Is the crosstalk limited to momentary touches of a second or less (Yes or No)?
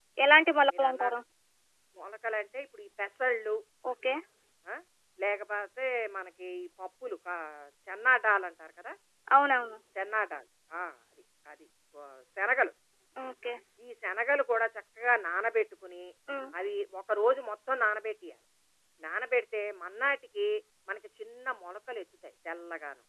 Yes